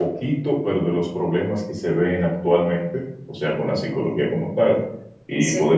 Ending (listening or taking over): listening